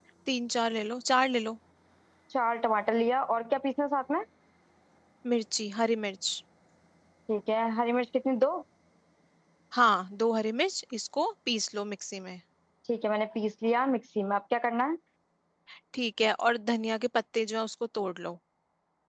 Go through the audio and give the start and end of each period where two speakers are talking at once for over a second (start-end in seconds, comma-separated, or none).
none